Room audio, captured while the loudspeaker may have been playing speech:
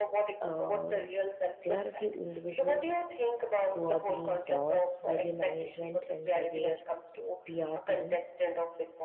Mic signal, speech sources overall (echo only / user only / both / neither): both